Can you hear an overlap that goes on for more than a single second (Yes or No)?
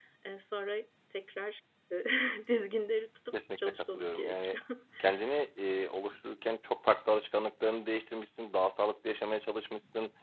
Yes